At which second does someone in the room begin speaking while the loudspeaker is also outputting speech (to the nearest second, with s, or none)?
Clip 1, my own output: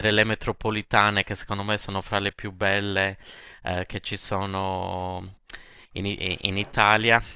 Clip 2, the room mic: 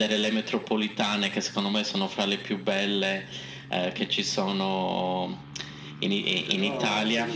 6 s